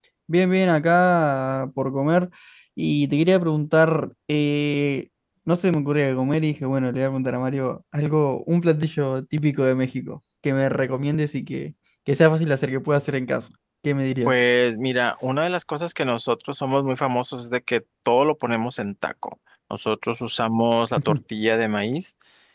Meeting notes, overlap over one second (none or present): none